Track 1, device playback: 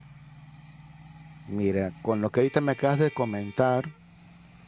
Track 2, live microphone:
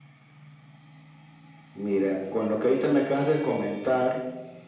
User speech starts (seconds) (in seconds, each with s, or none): none